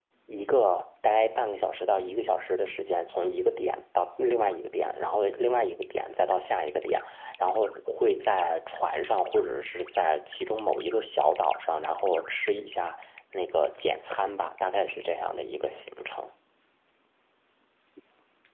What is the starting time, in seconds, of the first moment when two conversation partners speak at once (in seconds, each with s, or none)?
none